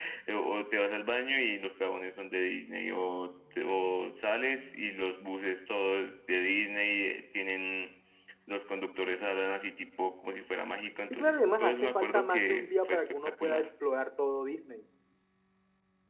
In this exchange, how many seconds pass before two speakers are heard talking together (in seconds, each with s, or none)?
11.1 s